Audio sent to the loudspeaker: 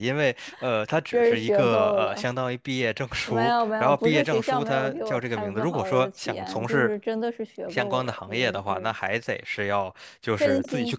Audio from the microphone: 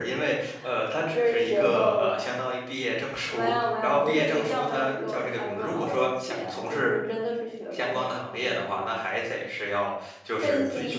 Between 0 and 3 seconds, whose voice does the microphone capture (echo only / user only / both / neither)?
echo only